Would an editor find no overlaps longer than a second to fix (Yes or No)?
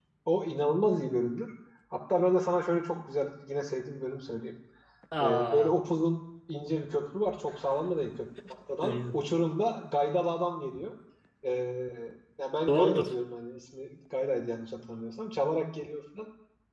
Yes